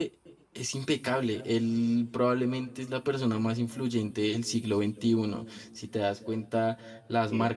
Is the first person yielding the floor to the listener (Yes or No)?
No